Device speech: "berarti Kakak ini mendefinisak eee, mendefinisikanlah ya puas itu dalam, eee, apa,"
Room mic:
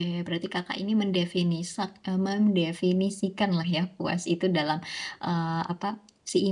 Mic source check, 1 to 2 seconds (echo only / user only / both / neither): echo only